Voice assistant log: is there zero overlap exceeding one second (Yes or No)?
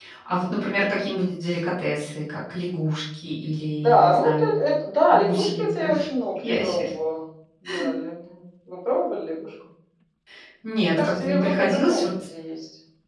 No